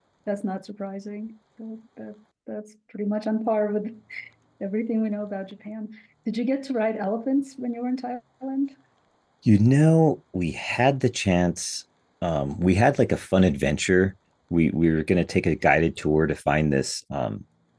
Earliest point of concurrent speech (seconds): none

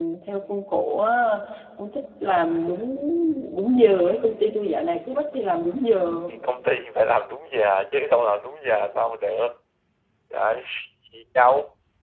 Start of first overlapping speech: none

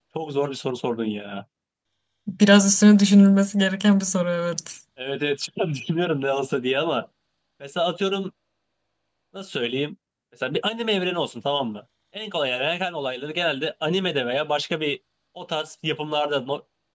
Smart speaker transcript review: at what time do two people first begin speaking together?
none

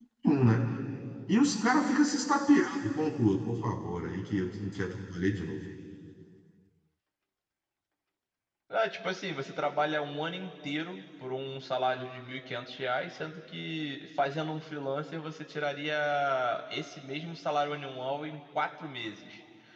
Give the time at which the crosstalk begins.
none

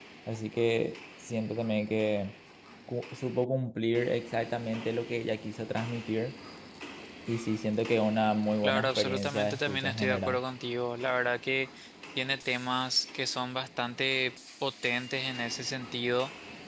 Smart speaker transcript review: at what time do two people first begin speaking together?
9 s

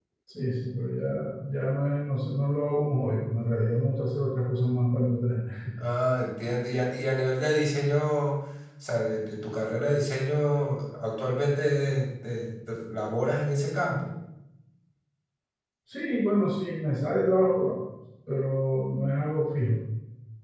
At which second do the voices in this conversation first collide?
none

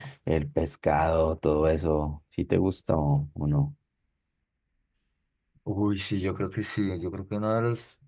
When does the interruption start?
none

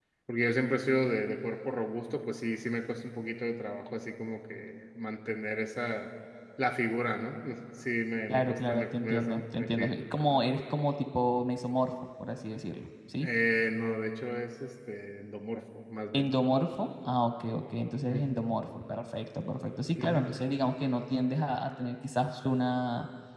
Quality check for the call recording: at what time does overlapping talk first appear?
8 s

